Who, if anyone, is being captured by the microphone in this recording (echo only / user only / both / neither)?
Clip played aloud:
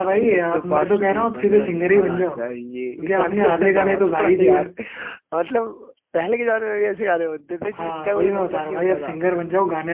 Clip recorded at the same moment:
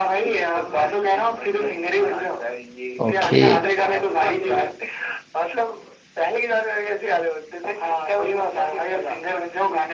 both